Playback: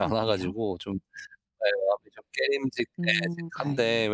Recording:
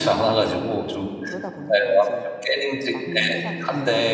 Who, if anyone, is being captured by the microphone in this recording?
both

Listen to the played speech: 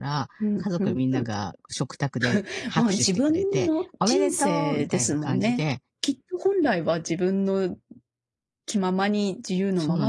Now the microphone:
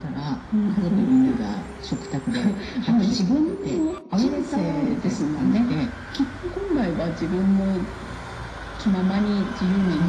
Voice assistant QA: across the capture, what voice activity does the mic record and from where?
echo only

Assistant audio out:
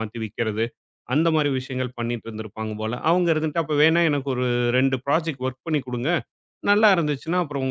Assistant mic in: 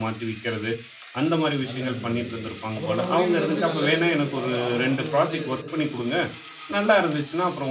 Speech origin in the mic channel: both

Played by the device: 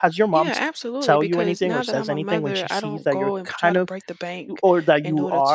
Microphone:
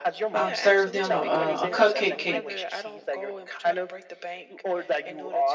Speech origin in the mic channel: both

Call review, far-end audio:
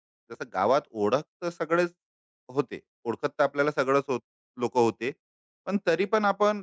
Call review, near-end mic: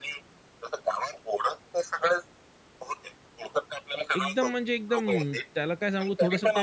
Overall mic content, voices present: both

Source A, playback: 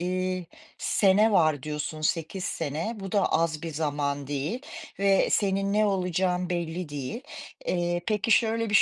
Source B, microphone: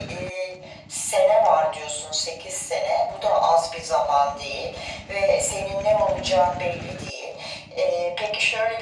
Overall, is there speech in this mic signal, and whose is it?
echo only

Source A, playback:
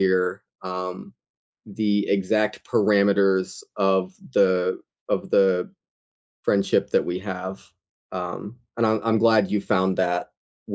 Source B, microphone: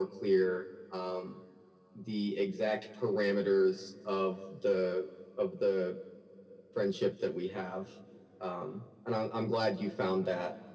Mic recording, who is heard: echo only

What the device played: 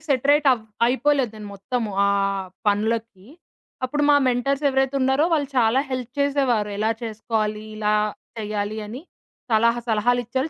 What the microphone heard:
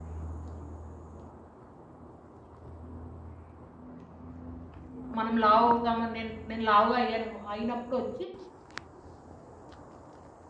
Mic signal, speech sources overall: user only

